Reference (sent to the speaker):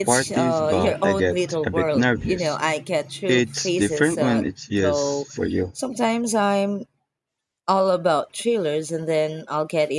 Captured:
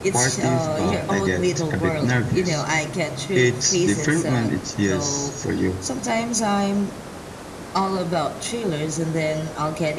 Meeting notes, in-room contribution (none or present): none